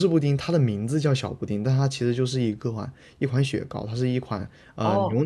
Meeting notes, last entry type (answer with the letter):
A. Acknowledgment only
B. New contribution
B